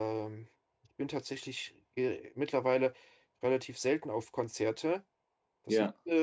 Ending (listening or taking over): listening